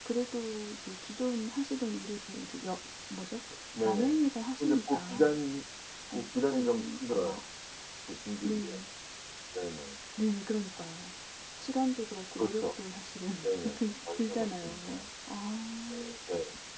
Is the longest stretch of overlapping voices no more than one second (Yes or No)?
No